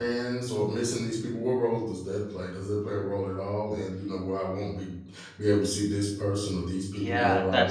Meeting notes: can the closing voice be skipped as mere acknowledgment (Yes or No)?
No